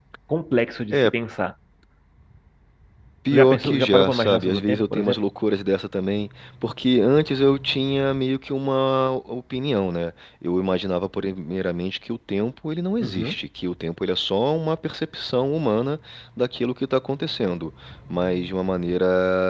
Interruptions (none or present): present